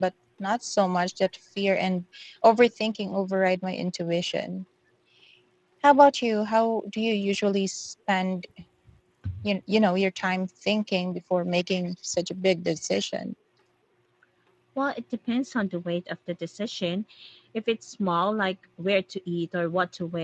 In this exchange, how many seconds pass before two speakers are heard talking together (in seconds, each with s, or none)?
none